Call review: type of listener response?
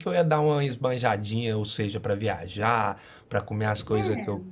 listening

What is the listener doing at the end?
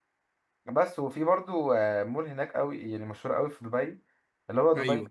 listening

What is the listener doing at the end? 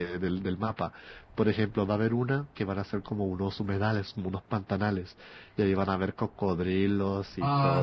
taking over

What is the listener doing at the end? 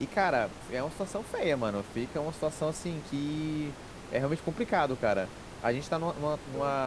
listening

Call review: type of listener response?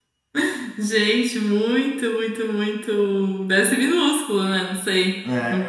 taking over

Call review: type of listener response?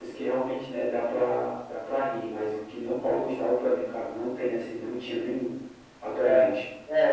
taking over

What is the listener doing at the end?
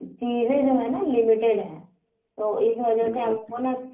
listening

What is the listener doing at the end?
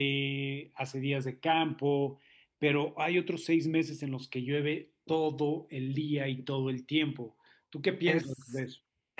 taking over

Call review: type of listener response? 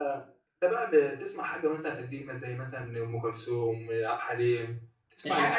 taking over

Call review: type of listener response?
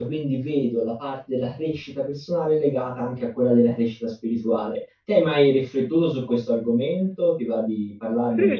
taking over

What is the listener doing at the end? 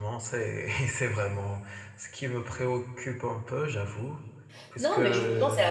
taking over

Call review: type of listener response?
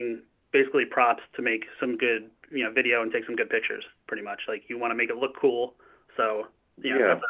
listening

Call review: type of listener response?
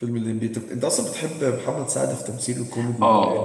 taking over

